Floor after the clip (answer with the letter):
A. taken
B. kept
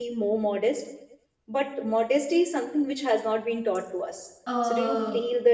A